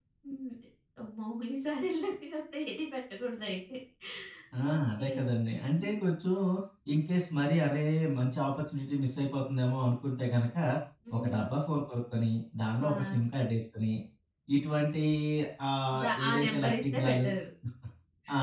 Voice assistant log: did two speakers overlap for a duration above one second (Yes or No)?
Yes